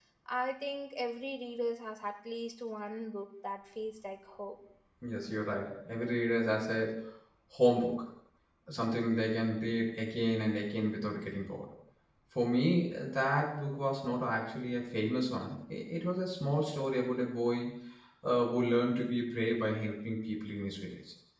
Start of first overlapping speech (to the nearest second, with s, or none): none